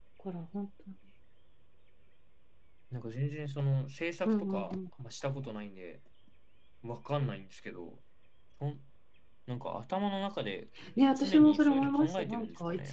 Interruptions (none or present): present